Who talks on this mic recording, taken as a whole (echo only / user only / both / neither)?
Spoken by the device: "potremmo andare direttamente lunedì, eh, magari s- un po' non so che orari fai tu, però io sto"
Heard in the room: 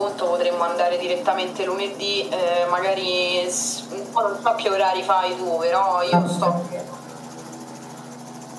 both